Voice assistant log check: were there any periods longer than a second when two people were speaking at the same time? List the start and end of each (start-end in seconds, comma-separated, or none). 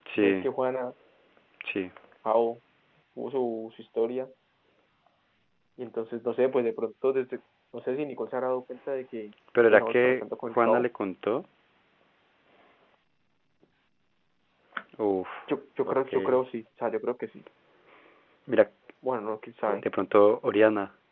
9.6-10.9